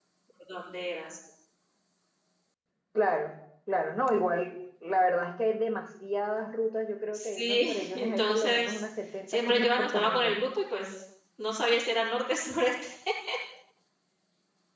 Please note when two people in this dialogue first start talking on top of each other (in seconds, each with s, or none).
7.1 s